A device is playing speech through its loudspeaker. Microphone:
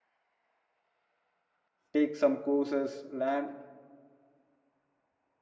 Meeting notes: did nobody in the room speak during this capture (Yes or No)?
No